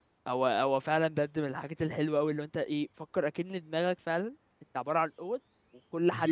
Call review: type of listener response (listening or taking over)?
listening